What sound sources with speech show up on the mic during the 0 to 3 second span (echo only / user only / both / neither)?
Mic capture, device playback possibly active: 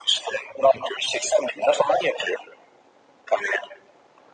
echo only